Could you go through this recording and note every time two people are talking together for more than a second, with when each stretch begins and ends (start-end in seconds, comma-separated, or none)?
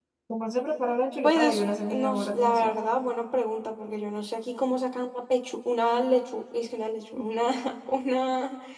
1.2-2.8